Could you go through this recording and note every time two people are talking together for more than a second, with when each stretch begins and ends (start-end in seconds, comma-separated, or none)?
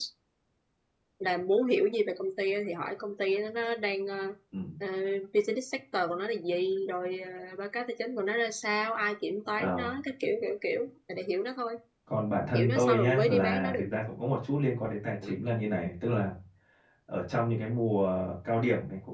12.5-13.8